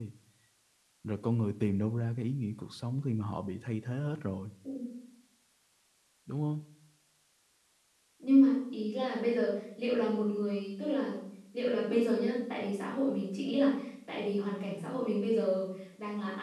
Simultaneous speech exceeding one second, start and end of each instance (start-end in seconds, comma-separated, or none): none